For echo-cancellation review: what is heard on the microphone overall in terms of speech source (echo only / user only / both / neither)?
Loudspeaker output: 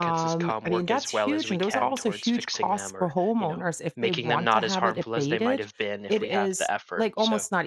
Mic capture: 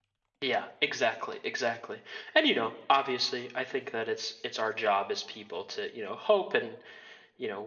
user only